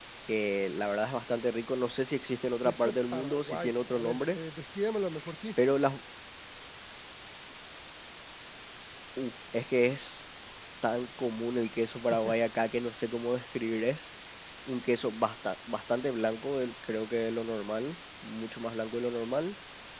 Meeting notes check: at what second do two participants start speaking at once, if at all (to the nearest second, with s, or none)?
3 s